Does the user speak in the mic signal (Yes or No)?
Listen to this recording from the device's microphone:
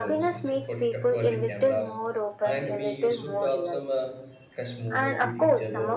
Yes